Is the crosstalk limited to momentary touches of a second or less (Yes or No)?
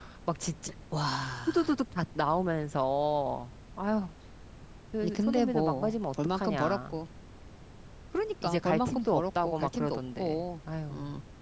No